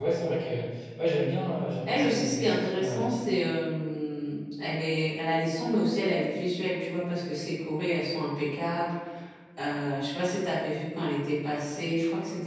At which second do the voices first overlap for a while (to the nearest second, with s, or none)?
2 s